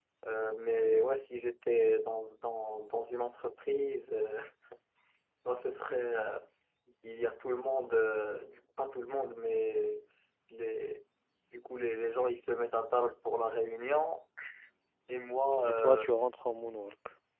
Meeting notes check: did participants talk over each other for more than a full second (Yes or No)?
No